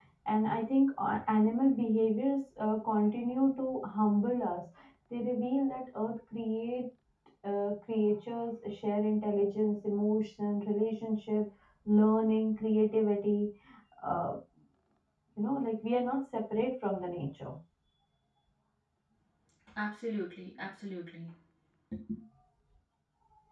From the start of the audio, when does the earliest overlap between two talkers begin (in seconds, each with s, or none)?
none